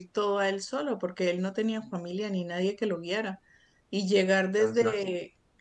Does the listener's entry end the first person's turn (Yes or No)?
No